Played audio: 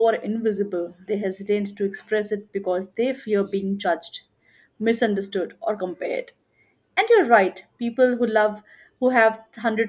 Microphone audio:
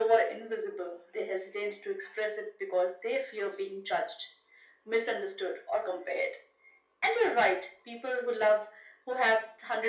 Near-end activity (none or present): none